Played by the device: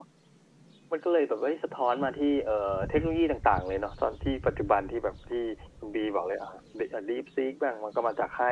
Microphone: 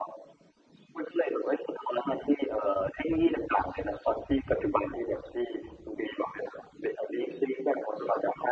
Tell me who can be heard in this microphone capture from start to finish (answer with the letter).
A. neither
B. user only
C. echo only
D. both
C